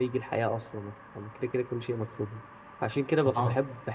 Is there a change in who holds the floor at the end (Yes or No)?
No